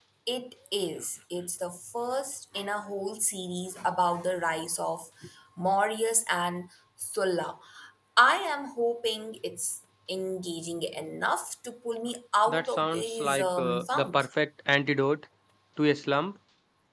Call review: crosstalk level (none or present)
present